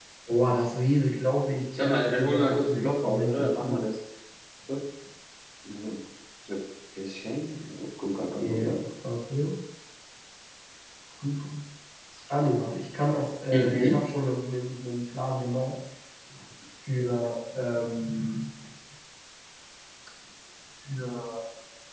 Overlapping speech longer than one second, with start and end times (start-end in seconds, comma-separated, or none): 1.8-3.8